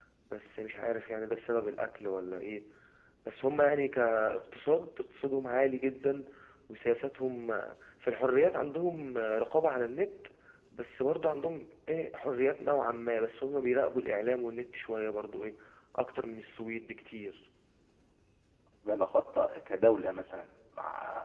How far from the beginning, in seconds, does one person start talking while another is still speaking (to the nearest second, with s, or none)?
none